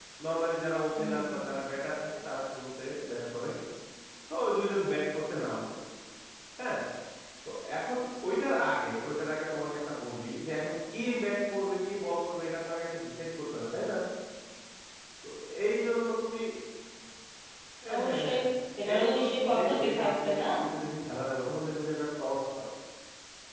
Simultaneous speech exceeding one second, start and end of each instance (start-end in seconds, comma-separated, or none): 18.9-20.4